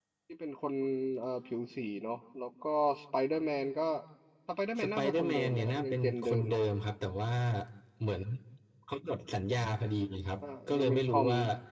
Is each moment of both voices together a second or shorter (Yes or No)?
No